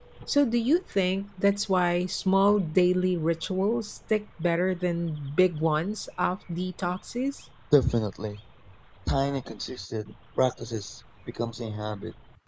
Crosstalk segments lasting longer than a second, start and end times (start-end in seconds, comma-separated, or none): none